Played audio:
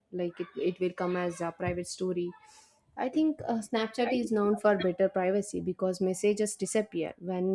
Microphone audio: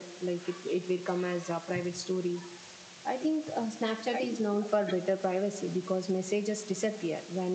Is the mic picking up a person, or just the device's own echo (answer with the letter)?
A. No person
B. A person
A